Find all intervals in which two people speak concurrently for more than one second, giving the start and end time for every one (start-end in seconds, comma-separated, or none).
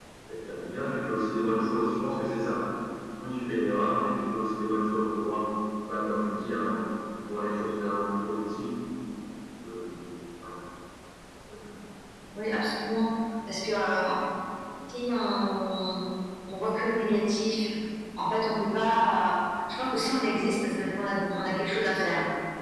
none